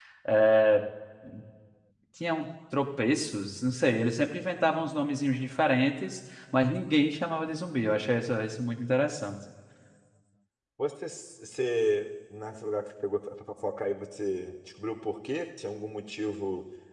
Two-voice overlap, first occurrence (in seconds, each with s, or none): none